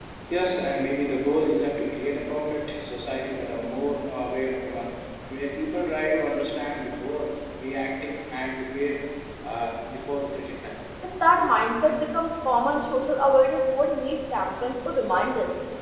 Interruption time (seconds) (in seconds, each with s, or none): none